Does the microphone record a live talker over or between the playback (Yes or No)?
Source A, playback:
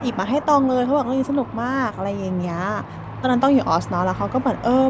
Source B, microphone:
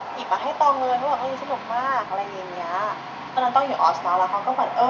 No